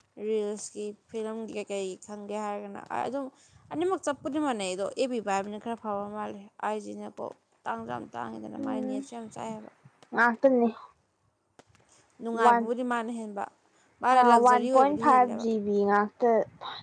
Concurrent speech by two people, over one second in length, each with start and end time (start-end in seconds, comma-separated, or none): 14.2-15.4